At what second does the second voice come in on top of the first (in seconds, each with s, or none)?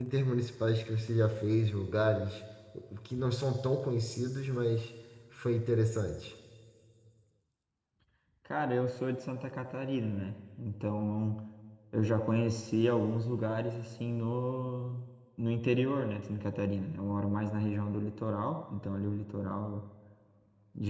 none